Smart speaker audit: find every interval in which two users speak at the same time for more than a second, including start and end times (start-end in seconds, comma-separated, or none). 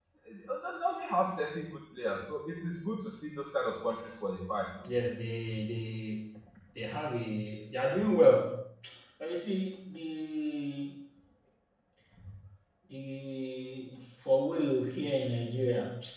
none